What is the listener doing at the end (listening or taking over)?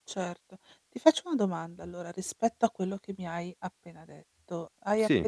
listening